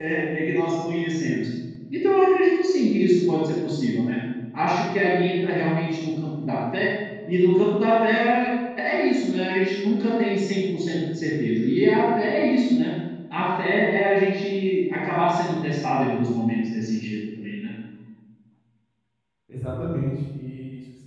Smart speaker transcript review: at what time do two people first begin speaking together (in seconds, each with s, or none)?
none